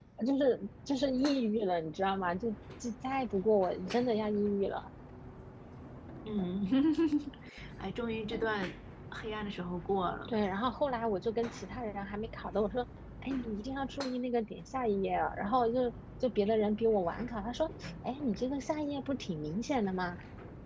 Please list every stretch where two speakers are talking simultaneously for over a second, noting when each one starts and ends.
none

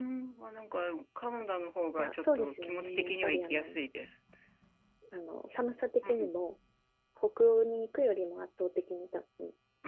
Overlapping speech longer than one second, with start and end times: 2.0-3.8

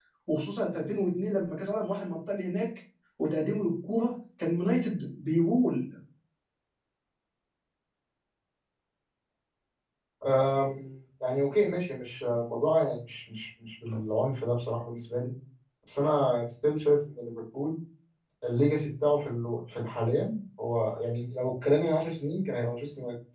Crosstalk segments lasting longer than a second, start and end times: none

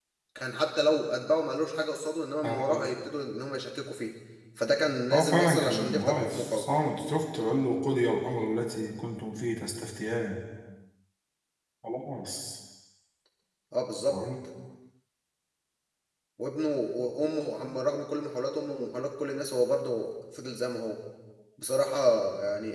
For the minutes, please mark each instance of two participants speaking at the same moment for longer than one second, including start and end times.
5.1-6.7

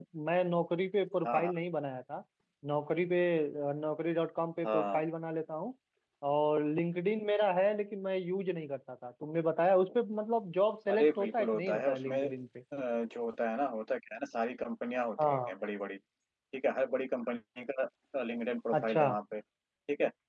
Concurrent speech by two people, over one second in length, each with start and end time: 10.9-12.2

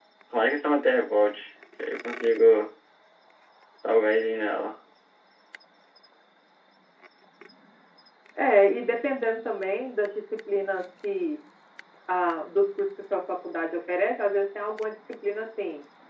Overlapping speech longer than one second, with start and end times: none

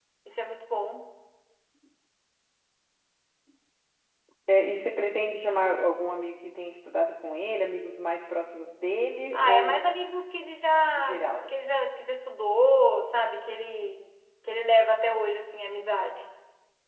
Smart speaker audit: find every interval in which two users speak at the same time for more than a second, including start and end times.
none

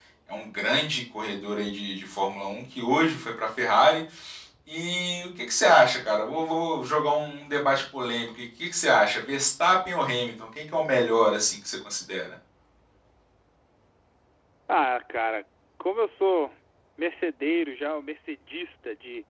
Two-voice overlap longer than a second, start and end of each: none

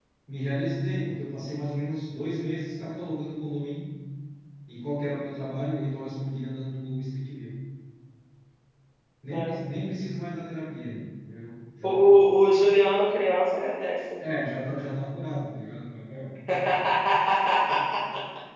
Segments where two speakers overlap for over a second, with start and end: none

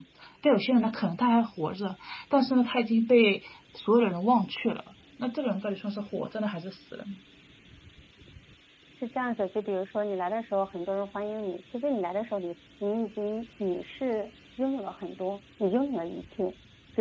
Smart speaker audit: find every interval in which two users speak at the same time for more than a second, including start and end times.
none

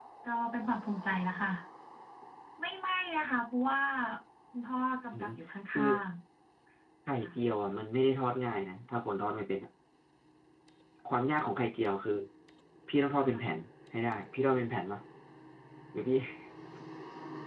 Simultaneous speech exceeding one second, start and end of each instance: none

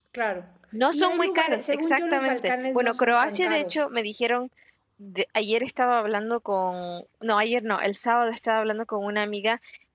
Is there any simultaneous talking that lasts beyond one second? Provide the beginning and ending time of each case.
0.9-3.7

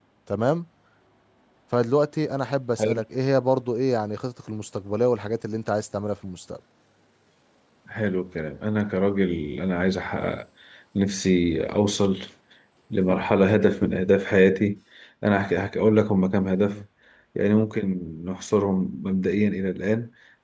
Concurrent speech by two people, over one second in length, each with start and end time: none

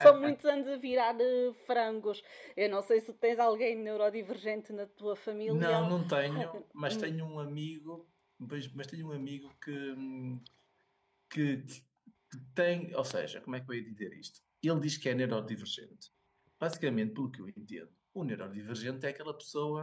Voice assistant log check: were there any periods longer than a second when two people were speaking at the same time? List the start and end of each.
none

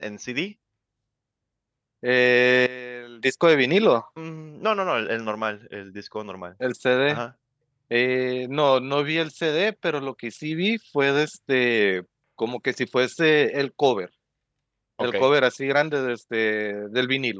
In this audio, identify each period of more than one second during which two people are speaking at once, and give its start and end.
none

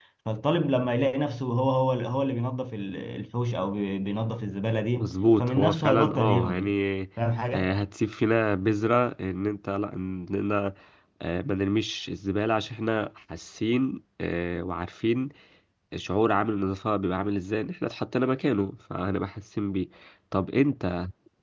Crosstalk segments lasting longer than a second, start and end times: 5.0-6.7

